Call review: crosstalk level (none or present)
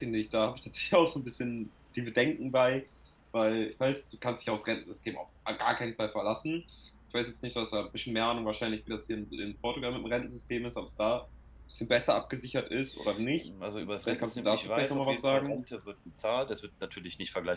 present